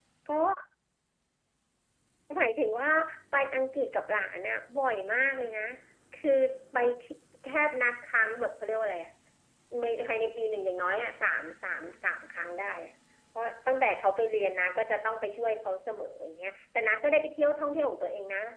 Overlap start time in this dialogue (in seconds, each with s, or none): none